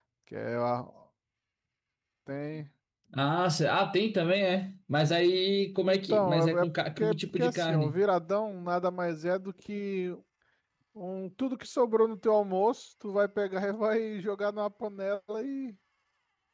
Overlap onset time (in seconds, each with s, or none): 5.8 s